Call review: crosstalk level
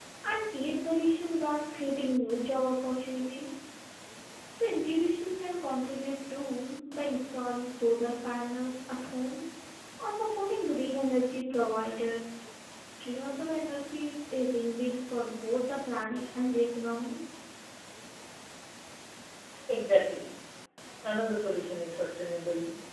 none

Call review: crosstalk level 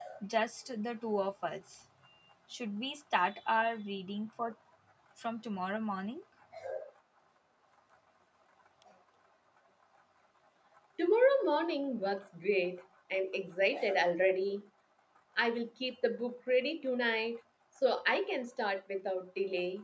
none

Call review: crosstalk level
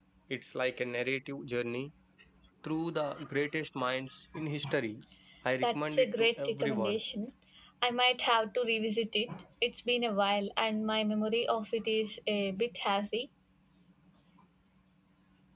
present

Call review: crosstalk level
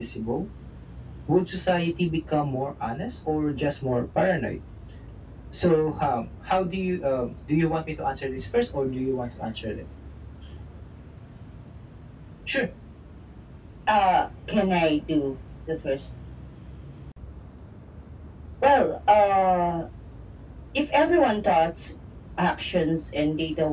none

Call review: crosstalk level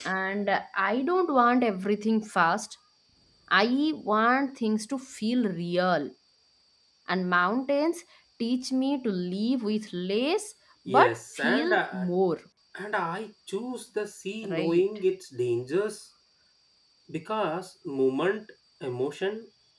present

